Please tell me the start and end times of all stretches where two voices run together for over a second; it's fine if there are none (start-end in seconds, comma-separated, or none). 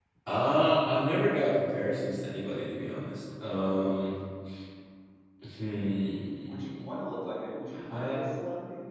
none